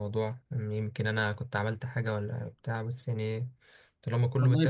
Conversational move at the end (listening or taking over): taking over